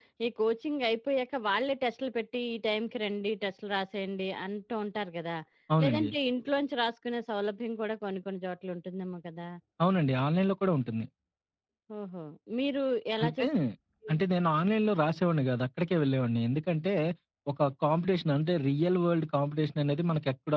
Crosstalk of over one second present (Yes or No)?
No